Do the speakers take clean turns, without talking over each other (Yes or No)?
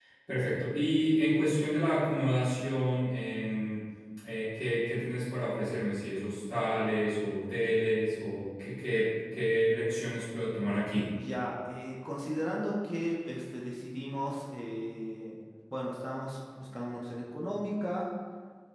Yes